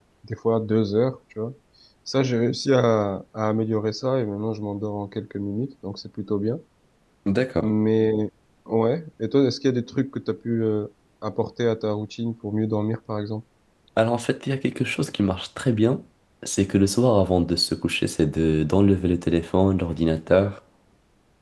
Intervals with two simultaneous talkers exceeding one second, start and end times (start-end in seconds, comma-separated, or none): none